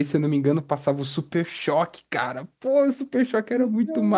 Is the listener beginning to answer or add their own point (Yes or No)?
Yes